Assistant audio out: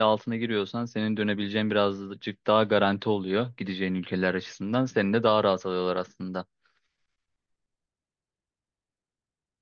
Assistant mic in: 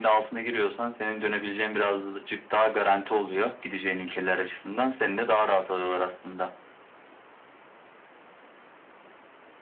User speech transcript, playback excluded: none

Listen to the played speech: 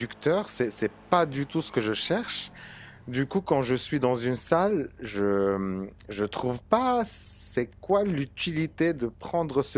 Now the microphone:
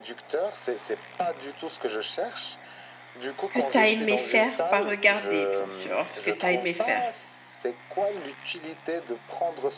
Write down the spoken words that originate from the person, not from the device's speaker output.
que tu as aimé faire, pas regarder, bien sûr, ce que tu as aimé faire.

